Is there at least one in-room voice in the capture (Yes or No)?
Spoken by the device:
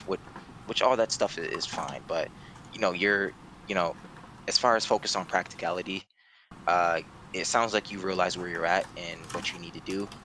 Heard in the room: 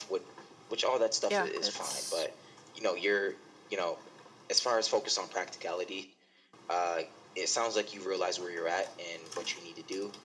Yes